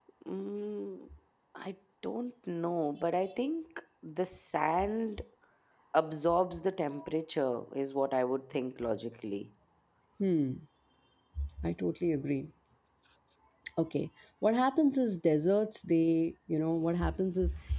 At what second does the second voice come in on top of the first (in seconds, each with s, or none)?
none